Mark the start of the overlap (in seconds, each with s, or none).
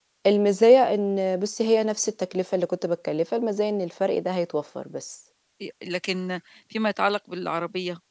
none